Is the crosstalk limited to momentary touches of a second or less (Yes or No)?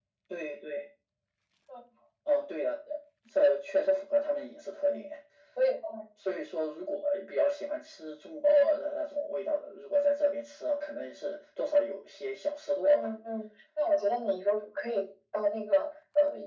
Yes